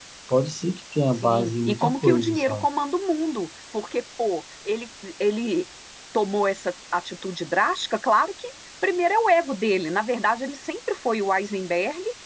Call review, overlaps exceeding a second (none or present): present